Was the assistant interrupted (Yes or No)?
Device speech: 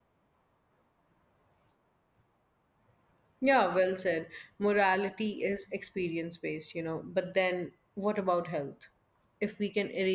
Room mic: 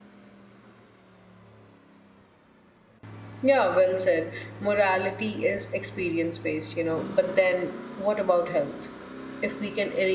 No